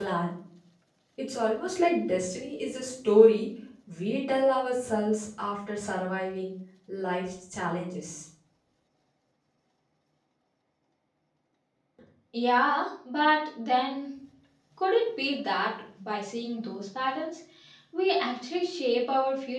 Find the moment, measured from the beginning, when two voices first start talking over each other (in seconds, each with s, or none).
none